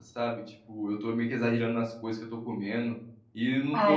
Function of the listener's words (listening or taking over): listening